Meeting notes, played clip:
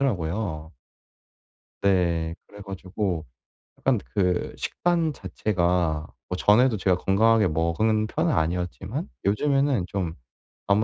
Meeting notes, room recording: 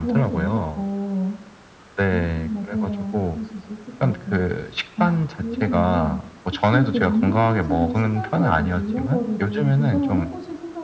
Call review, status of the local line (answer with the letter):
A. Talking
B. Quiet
A